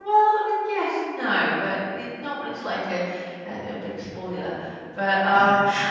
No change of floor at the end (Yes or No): No